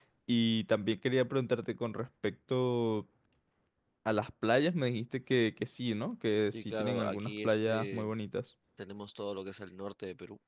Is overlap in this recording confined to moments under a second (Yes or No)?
No